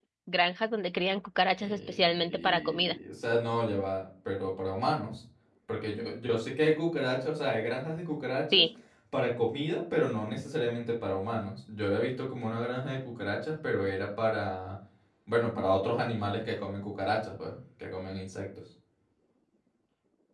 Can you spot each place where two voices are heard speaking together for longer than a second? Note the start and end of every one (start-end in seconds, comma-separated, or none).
1.6-3.0